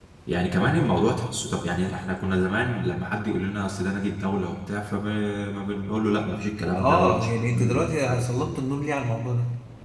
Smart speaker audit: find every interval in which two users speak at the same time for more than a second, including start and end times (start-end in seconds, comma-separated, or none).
6.8-8.6